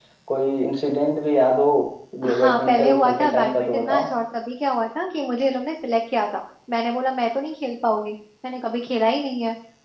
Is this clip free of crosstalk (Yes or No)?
No